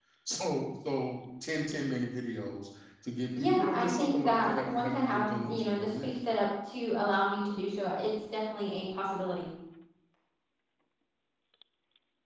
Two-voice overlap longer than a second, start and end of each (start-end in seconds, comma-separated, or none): 3.4-6.1